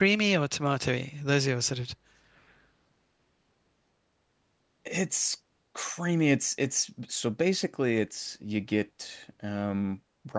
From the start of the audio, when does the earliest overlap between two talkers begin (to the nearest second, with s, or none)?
none